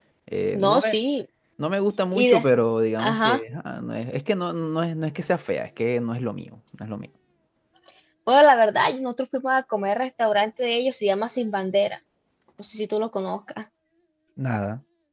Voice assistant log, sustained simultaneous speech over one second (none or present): none